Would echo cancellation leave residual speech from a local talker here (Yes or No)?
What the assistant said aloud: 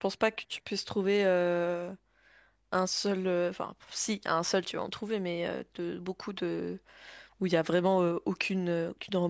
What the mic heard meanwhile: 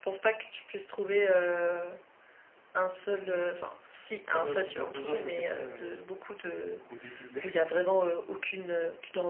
Yes